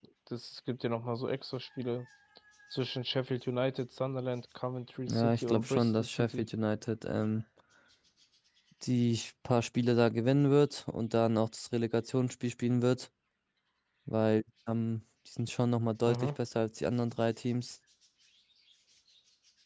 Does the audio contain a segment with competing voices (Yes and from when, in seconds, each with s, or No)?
Yes, from 5.1 s